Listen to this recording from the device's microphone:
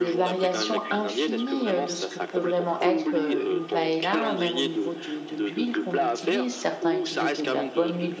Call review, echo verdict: present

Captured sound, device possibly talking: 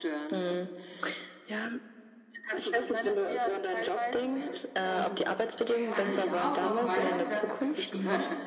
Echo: present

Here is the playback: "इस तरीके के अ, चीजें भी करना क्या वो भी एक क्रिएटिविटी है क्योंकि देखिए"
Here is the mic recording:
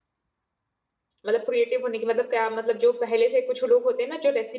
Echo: none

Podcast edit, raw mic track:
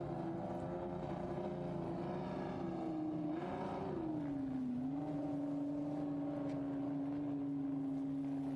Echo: none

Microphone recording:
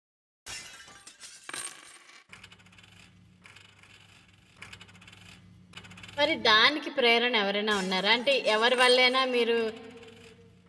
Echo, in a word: none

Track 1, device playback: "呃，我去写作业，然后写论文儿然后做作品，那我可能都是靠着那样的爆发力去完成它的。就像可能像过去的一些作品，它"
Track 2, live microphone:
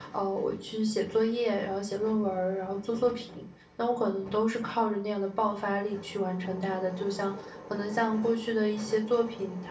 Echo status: present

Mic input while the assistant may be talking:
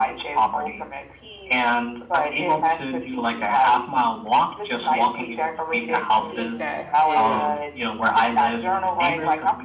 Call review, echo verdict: present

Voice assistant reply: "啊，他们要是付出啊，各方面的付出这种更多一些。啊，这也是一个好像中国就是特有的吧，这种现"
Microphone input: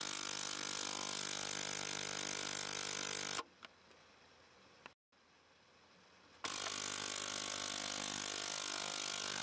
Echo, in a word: none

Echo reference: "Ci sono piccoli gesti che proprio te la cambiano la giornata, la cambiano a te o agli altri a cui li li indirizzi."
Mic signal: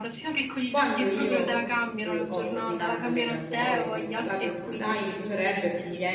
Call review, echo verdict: present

